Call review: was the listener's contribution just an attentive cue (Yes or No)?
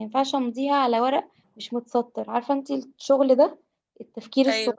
Yes